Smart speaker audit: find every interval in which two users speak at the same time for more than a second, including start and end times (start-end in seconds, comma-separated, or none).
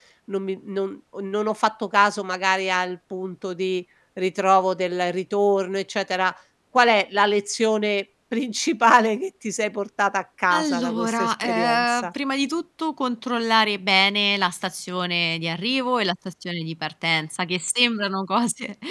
10.5-12.1